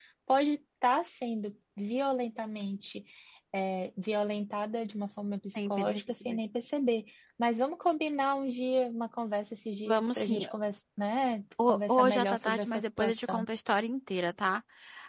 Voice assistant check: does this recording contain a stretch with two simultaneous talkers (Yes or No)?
Yes